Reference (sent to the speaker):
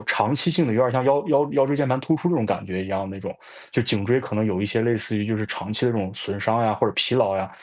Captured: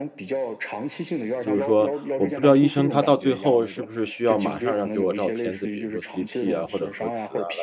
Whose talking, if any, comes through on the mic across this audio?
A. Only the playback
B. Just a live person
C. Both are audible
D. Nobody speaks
C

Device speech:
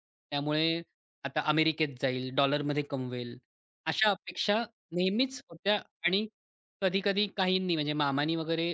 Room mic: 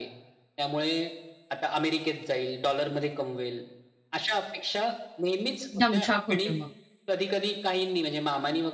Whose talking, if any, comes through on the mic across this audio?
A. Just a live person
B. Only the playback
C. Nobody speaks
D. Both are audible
D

